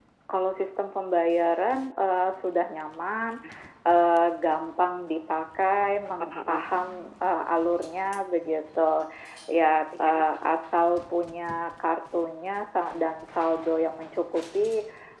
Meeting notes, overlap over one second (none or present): none